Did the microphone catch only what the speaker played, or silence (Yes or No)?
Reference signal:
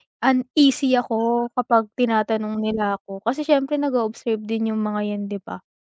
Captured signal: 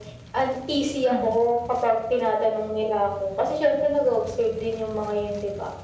No